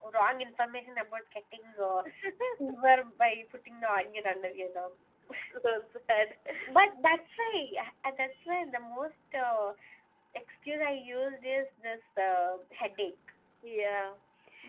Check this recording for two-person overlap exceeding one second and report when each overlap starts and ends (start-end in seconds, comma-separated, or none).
none